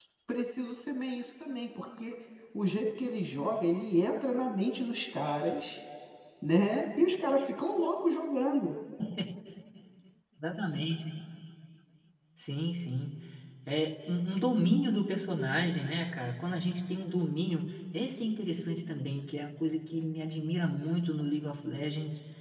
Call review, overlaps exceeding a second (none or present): none